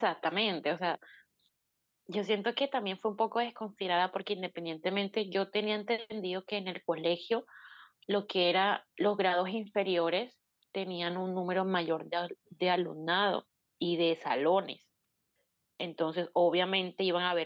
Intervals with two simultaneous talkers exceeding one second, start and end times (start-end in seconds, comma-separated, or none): none